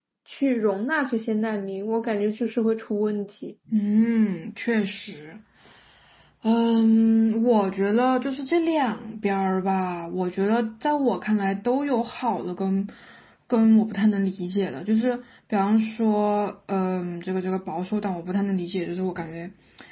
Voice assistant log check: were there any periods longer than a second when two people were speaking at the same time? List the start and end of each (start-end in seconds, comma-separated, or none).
none